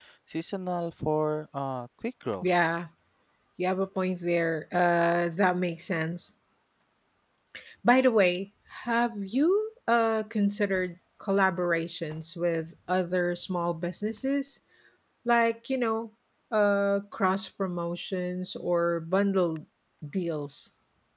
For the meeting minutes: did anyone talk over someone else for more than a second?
No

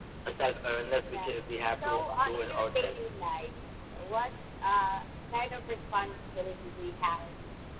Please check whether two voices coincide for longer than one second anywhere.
Yes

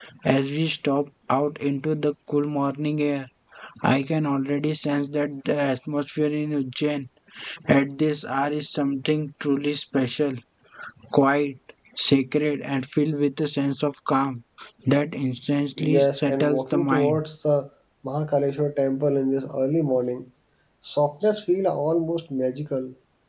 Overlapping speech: Yes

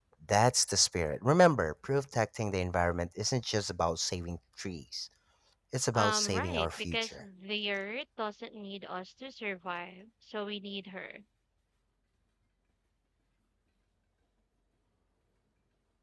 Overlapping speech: Yes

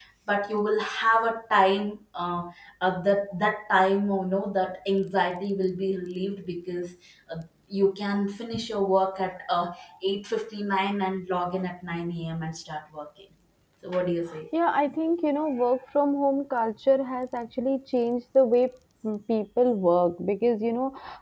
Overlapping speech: No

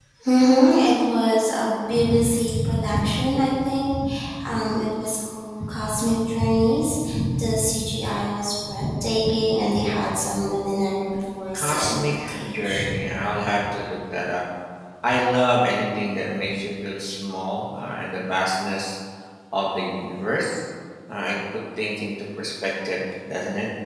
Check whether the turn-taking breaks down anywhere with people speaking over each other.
Yes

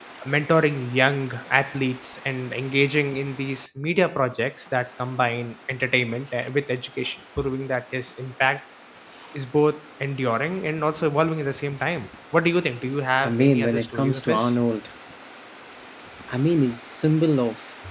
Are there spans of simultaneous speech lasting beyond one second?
Yes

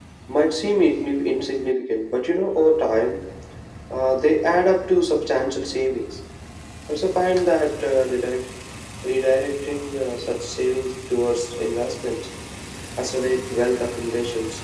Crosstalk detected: No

